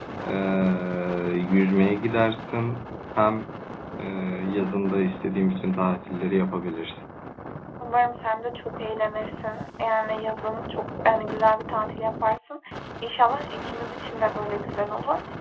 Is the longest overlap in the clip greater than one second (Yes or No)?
No